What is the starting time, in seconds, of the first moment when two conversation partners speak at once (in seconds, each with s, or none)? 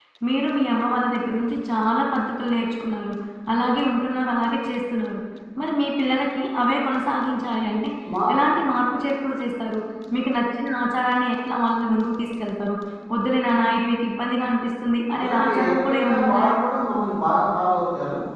15.2 s